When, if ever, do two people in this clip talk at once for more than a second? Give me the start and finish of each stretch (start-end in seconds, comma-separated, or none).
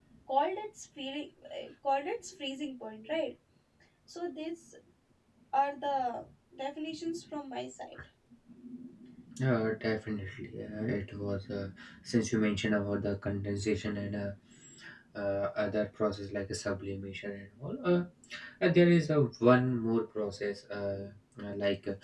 none